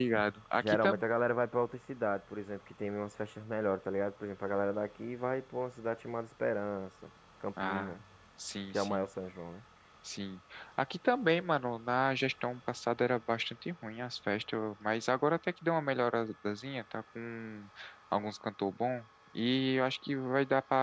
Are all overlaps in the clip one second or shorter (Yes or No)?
Yes